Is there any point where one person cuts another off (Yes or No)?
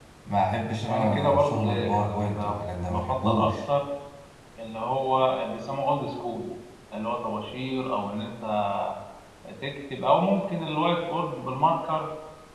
Yes